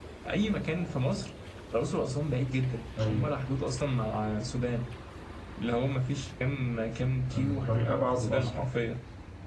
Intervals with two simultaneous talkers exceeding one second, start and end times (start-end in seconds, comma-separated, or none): 7.3-8.6